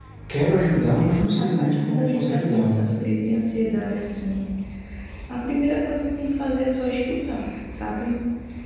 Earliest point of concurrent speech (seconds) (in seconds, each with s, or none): 1.4 s